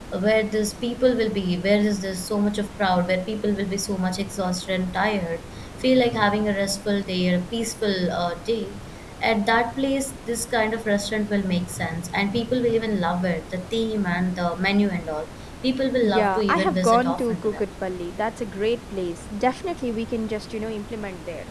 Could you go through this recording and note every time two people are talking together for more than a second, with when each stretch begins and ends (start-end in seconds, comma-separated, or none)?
16.0-17.6